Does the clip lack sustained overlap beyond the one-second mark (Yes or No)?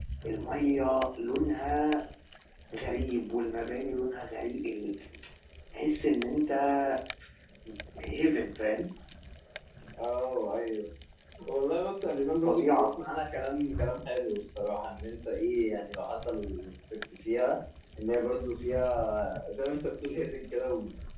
Yes